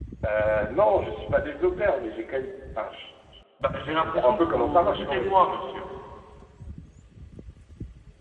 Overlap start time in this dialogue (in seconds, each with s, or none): 3.8 s